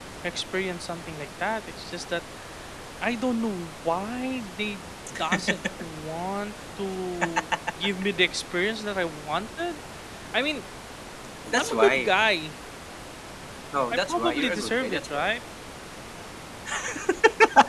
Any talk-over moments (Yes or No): Yes